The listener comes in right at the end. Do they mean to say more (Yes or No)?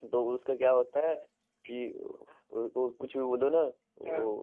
No